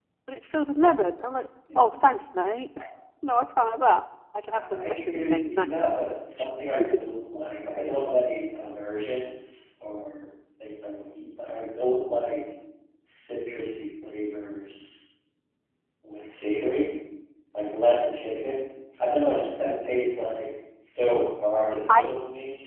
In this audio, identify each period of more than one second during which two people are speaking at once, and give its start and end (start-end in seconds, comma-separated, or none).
4.5-5.7